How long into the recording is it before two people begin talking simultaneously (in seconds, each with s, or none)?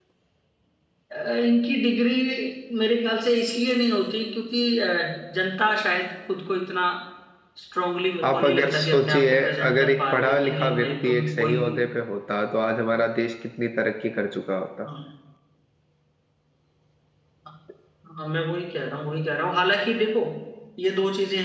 8.2 s